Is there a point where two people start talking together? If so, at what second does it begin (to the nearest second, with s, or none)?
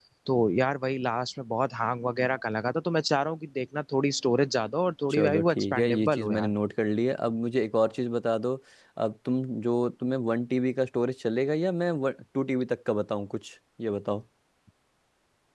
5 s